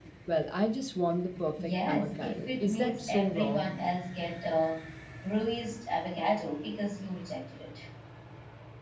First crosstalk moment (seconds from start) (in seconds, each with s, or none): 1.6 s